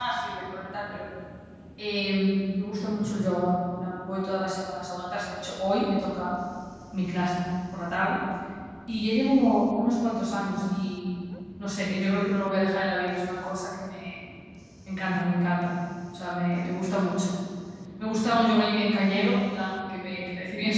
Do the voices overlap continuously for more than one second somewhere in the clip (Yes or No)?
No